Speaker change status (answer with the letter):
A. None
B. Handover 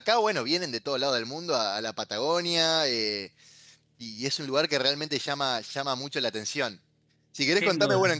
A